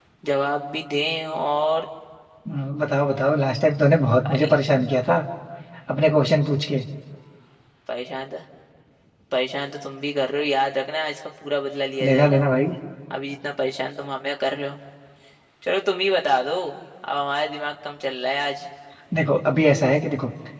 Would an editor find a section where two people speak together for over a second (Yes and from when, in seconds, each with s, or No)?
No